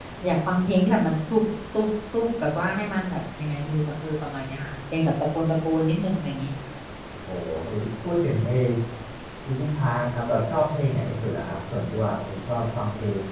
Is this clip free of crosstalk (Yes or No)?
Yes